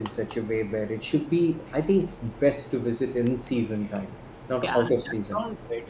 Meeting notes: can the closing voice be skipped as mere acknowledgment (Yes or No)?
No